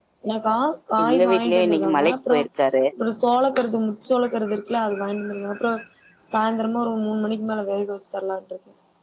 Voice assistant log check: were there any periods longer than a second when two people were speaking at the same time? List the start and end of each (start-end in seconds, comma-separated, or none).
1.0-2.4